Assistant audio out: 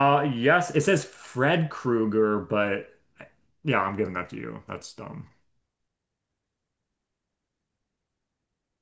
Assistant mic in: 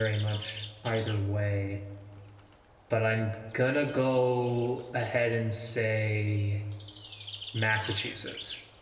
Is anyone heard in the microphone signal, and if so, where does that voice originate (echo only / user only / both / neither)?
user only